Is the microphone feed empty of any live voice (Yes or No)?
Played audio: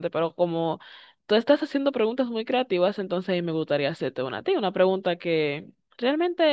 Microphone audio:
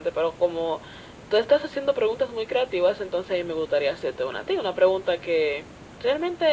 Yes